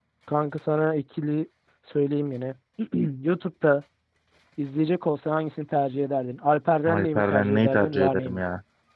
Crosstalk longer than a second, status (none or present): present